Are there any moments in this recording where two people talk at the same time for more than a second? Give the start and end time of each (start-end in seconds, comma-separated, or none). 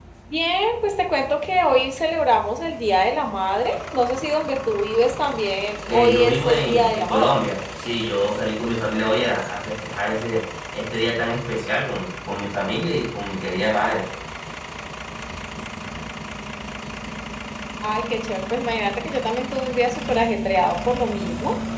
5.9-7.4